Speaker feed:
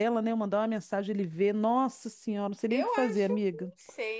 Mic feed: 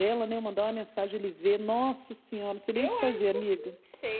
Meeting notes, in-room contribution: none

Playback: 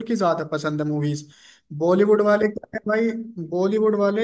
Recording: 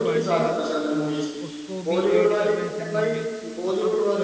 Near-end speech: present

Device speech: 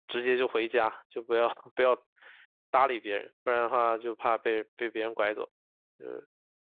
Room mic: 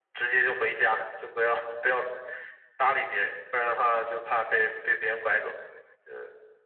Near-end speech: none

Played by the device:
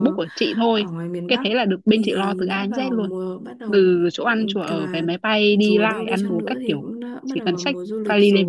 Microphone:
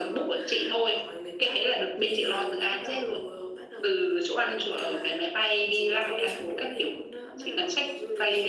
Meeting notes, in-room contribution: none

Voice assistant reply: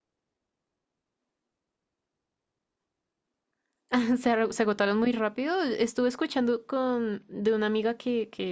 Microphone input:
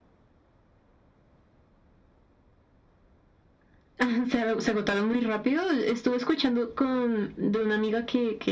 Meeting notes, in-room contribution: none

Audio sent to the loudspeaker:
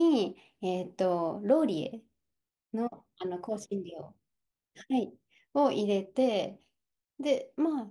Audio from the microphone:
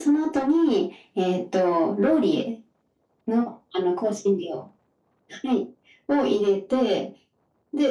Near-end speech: none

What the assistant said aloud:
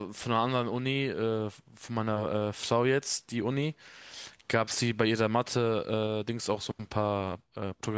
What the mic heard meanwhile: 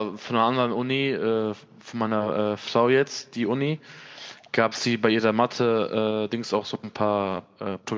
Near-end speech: none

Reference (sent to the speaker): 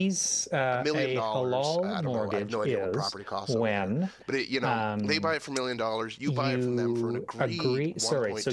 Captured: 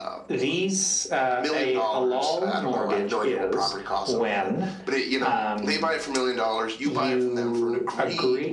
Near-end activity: none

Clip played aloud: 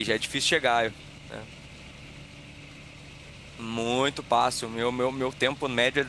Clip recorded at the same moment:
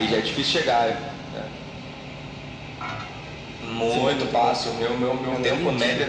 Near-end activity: present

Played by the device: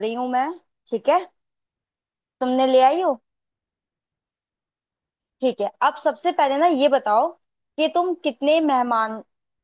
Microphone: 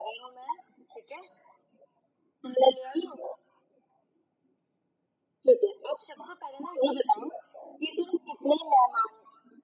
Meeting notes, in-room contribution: none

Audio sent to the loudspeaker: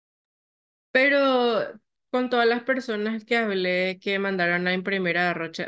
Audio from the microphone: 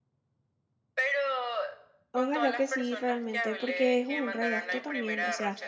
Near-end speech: present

